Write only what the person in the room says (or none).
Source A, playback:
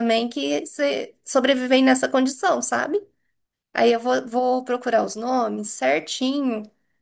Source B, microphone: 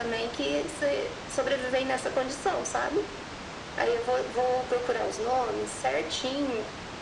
none